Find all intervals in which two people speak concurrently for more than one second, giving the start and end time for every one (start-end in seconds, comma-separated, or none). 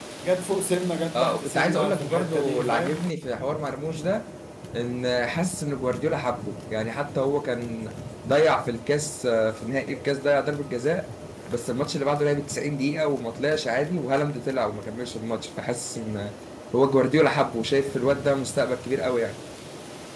1.1-3.1